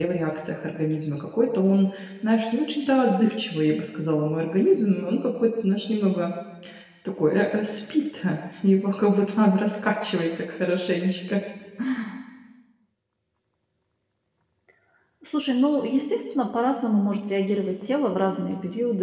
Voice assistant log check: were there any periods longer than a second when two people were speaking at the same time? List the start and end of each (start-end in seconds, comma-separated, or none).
none